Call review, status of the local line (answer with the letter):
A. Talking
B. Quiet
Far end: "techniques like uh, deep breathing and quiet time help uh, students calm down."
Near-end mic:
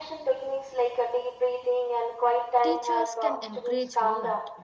A